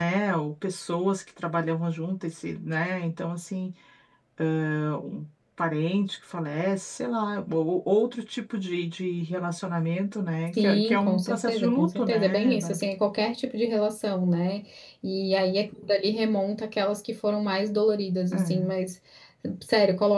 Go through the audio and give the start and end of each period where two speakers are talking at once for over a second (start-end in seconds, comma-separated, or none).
10.6-12.8